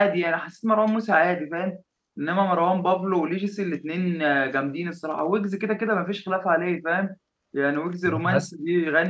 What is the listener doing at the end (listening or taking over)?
listening